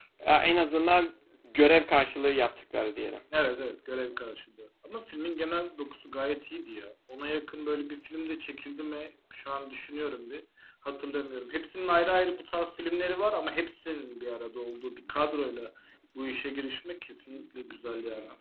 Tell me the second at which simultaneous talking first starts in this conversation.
none

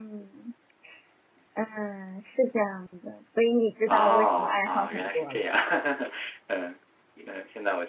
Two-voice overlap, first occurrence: 4 s

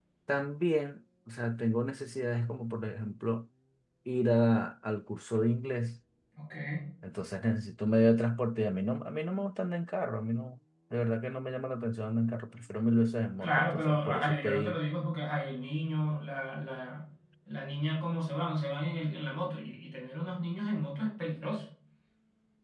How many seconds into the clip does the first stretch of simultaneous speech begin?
13 s

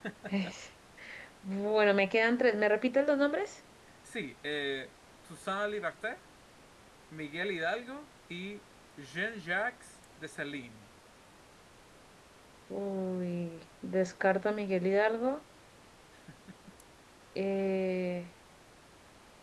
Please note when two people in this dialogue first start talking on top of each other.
none

